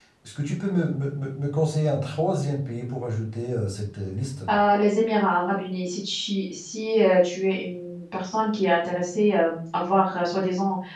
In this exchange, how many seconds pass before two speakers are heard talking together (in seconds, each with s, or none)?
none